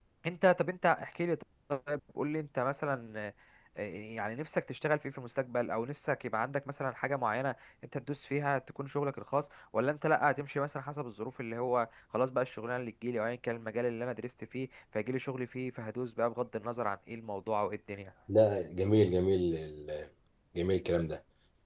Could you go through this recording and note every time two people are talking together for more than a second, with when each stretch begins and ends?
none

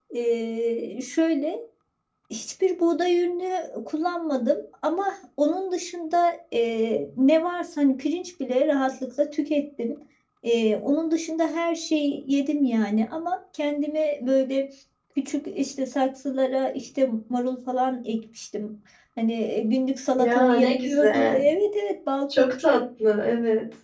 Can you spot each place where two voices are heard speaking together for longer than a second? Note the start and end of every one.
20.2-21.4

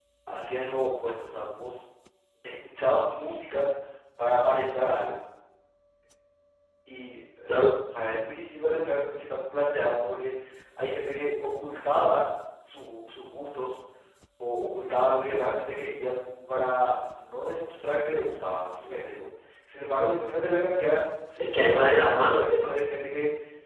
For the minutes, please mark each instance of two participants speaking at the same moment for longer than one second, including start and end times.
21.4-22.8

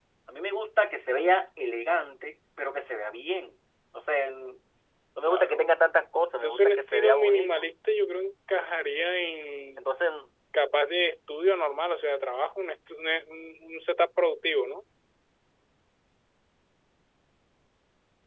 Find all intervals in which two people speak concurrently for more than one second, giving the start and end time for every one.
6.3-7.7

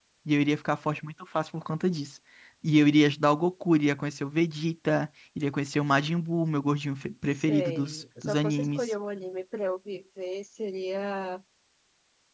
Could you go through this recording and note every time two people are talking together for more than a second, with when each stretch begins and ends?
7.4-8.9

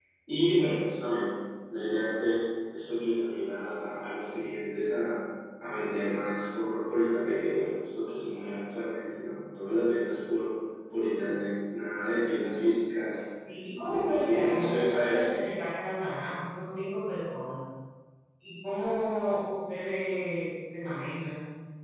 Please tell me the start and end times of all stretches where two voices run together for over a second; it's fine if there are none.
13.8-15.3

